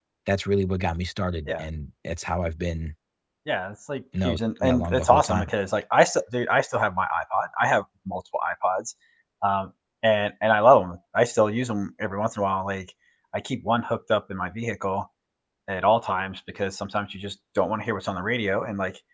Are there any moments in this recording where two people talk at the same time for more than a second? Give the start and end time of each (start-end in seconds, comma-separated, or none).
4.2-5.5